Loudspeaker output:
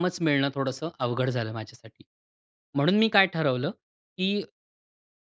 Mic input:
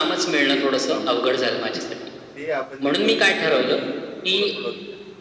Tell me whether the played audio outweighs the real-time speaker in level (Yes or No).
Yes